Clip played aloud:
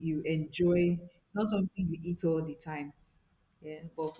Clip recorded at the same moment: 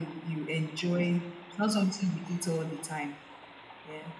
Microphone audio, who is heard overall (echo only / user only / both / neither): echo only